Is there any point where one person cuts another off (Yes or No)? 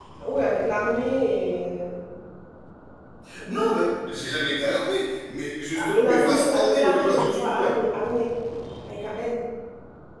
Yes